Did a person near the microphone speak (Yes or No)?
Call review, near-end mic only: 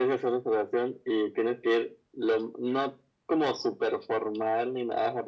No